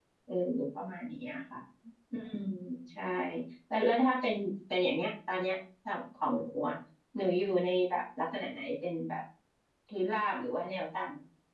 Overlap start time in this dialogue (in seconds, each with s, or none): none